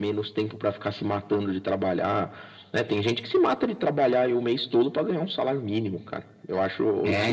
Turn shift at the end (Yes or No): No